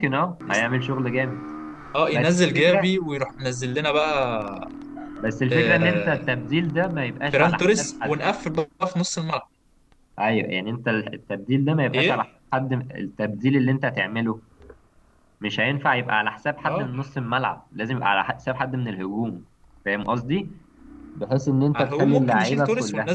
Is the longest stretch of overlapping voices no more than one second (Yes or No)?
No